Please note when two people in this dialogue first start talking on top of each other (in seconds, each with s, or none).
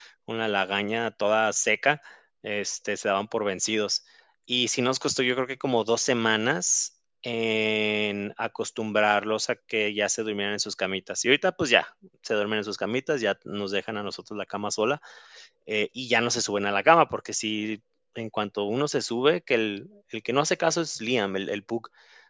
none